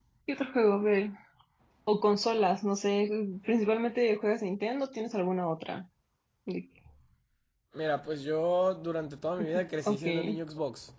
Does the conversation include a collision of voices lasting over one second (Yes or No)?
No